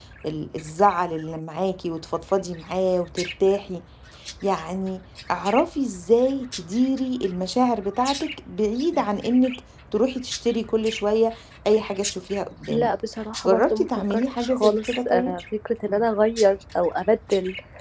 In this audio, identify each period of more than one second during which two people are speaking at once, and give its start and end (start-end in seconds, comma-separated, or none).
13.5-15.4